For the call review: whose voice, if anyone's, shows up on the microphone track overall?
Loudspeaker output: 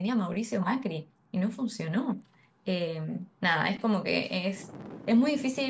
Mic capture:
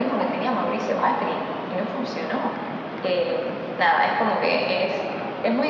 echo only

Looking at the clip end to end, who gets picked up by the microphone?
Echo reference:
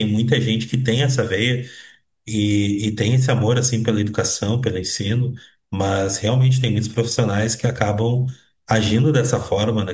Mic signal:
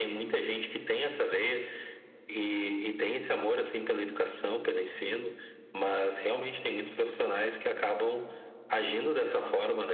echo only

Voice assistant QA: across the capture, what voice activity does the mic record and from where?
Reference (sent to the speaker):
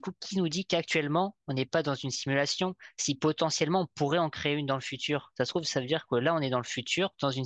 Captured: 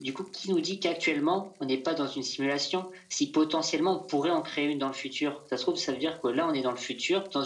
echo only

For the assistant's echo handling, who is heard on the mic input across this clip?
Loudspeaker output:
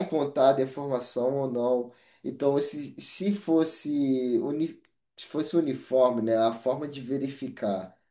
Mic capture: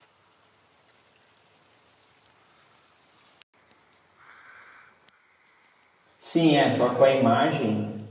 user only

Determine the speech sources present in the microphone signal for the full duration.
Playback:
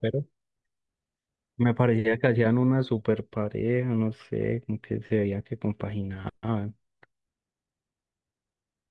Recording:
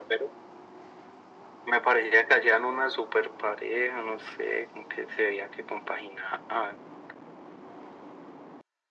echo only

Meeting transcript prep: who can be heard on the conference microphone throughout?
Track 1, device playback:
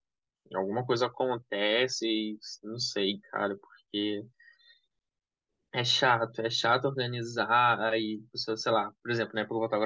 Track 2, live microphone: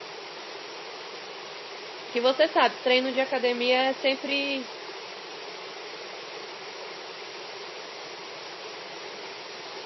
user only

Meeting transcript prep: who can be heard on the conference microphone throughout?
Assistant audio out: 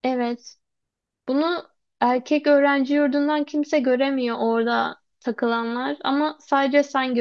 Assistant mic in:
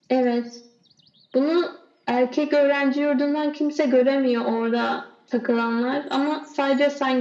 echo only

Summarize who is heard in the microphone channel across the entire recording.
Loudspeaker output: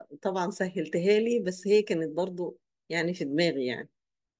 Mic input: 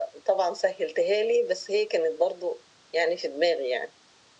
echo only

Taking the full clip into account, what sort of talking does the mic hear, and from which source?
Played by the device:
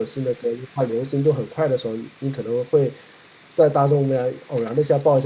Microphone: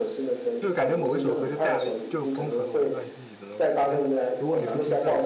both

